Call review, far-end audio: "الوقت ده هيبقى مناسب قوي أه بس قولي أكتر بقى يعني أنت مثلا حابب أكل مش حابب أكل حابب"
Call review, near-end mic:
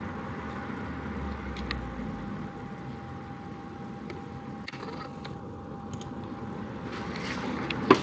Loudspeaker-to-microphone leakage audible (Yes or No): No